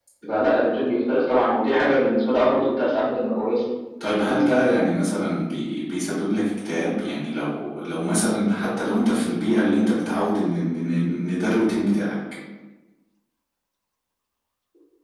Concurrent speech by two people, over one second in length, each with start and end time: none

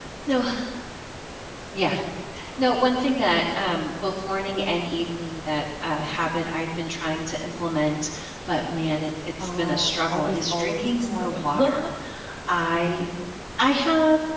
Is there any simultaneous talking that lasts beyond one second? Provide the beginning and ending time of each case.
9.4-11.7

